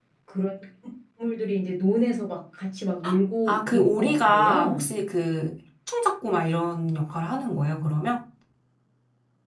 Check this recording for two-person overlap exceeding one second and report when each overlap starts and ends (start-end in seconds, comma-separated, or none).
3.5-4.9